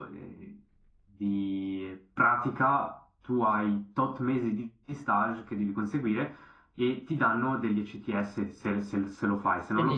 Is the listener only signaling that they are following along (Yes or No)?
No